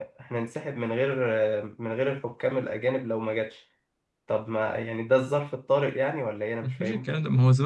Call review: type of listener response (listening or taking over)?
taking over